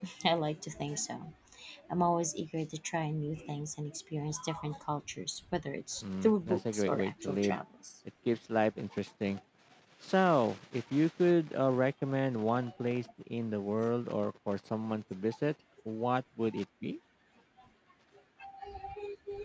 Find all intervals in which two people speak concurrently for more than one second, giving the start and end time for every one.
6.2-7.6

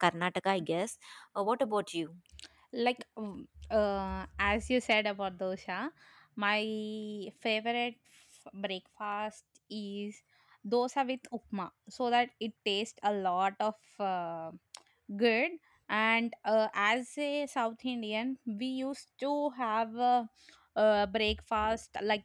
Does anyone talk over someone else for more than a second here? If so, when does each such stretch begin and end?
none

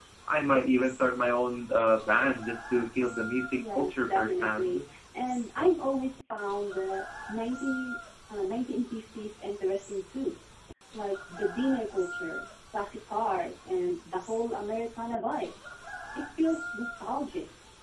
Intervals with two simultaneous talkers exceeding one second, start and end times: 3.6-4.8

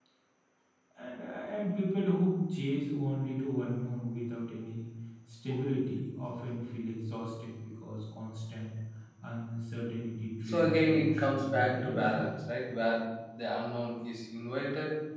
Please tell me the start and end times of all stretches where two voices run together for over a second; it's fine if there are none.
10.4-12.2

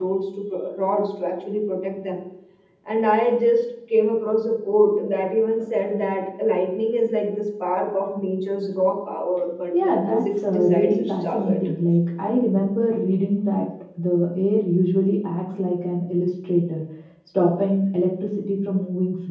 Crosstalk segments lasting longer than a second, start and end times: 9.8-11.5

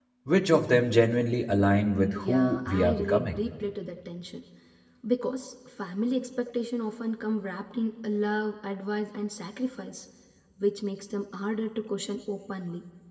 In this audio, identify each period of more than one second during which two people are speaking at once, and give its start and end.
2.1-3.4

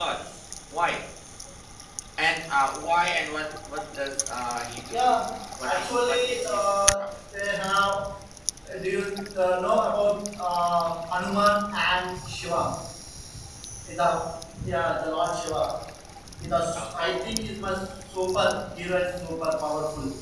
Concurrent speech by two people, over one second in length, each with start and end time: 5.6-7.0

